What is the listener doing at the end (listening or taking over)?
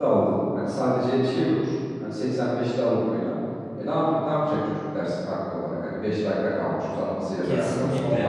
taking over